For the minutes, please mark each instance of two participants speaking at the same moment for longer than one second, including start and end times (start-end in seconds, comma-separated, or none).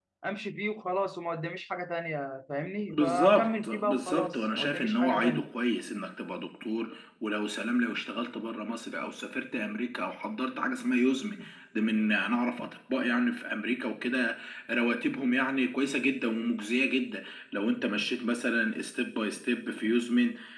2.9-5.5